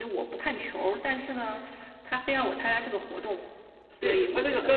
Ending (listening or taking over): taking over